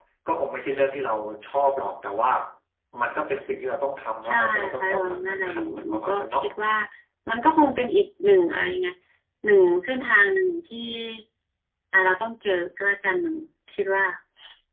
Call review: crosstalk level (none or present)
present